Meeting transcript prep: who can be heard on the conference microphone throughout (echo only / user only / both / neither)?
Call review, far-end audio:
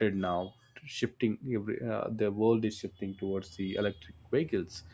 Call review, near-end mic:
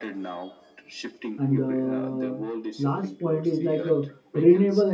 both